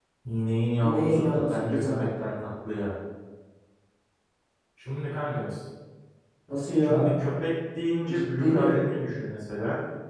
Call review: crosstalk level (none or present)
present